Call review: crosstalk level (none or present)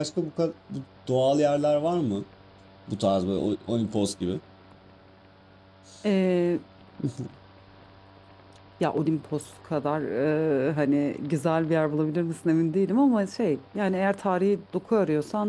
none